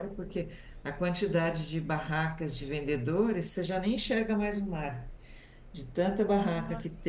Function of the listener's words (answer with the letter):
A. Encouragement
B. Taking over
A